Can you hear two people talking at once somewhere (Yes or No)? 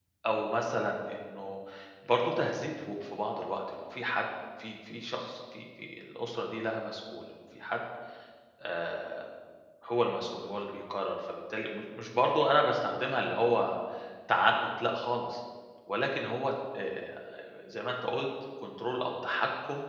No